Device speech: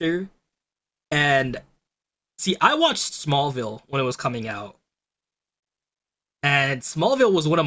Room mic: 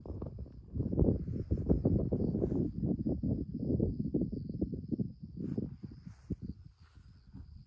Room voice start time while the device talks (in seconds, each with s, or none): none